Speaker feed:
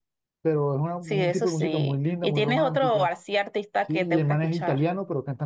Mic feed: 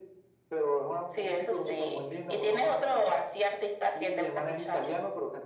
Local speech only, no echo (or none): none